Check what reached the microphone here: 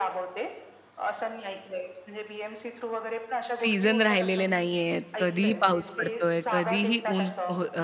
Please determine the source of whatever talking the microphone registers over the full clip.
both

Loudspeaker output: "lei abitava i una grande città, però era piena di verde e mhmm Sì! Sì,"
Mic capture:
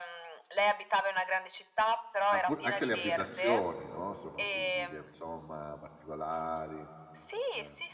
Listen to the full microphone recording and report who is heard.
both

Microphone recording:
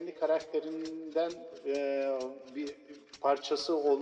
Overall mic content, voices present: echo only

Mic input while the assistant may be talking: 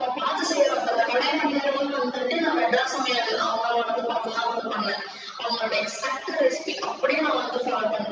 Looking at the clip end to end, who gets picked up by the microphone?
echo only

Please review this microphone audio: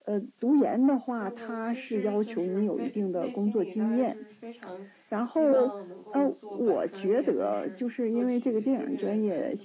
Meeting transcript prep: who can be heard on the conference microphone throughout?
both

